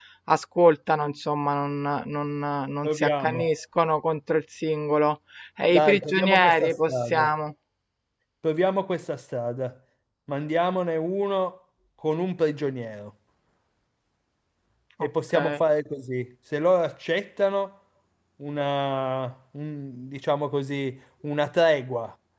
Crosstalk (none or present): present